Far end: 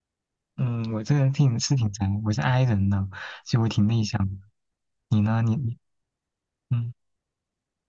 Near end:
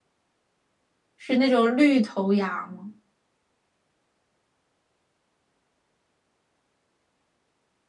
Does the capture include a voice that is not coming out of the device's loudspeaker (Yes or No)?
Yes